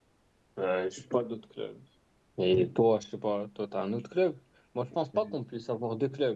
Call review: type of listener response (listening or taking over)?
listening